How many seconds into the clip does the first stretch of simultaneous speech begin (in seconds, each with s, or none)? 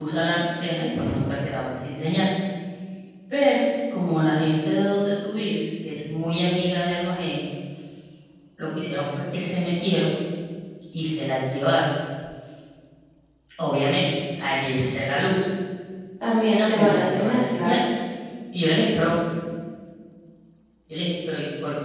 16.6 s